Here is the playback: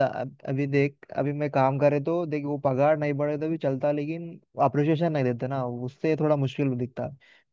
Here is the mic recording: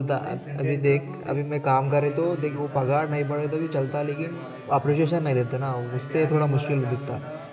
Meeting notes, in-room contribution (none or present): present